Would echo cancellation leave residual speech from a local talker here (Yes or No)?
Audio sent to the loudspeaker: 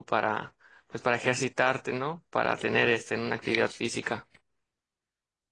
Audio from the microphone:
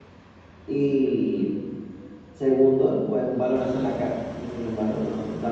Yes